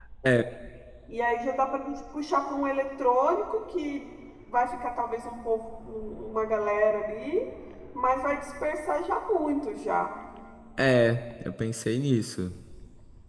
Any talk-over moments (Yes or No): No